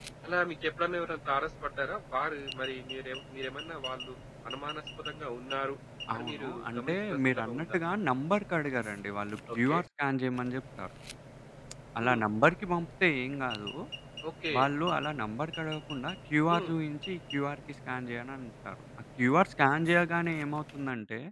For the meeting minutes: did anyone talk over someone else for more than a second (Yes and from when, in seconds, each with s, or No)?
Yes, from 6.1 s